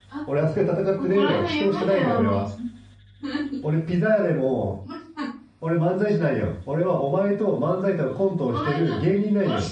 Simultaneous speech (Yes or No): Yes